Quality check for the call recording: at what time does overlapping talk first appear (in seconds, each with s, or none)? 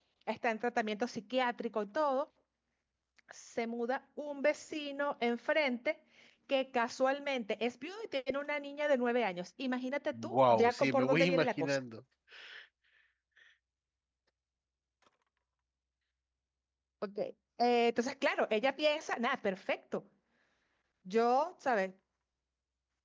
10.1 s